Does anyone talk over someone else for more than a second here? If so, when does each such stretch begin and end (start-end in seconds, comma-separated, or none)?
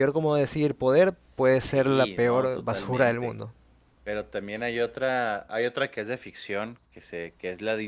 1.6-3.3